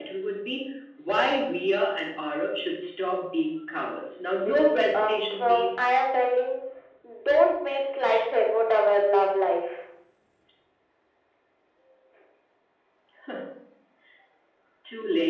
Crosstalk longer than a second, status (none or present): present